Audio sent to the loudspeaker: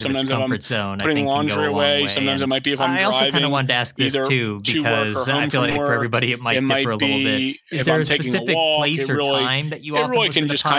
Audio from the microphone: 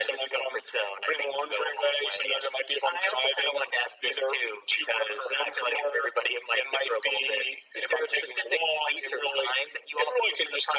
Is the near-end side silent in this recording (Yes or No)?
Yes